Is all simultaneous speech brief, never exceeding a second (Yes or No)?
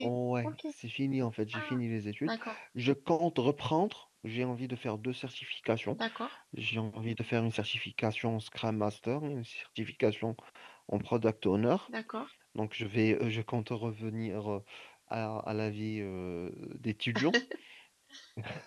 Yes